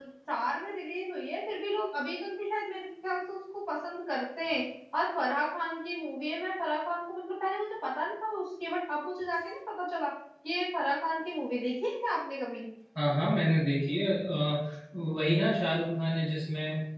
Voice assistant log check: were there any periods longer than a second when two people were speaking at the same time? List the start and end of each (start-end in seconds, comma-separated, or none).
none